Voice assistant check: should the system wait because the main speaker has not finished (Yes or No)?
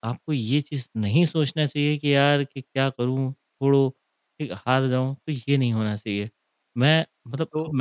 No